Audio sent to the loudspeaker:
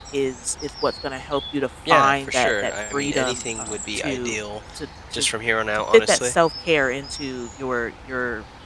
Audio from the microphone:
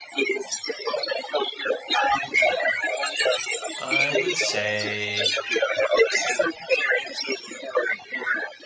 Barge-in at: 3.8 s

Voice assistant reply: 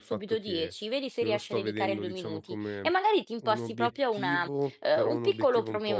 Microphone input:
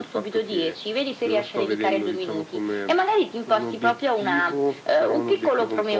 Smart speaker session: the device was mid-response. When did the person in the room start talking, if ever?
none

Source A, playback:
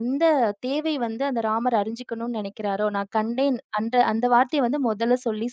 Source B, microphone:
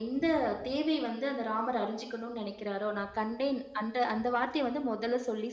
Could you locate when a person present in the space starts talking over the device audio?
none

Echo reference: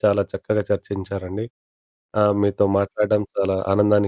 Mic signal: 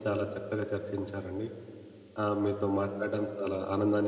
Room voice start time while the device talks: none

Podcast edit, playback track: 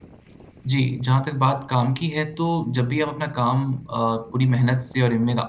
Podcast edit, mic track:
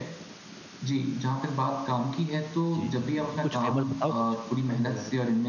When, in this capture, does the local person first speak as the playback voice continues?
2.7 s

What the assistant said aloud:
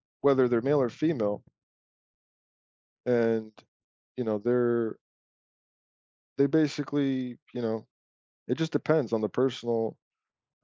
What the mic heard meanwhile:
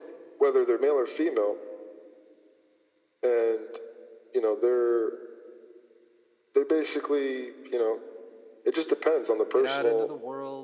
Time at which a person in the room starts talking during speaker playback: 9.5 s

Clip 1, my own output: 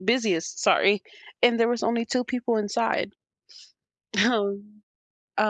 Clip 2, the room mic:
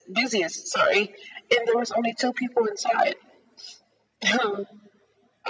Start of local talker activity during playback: none

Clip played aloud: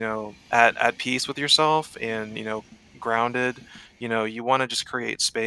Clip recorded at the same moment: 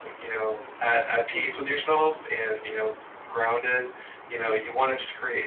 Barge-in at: 1.3 s

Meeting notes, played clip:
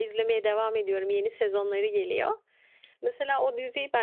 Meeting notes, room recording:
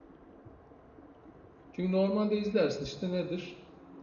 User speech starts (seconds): 1.7 s

